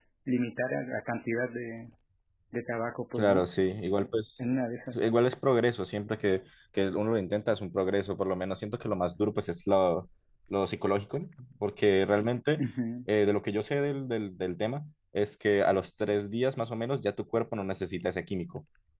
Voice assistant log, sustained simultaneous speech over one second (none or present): none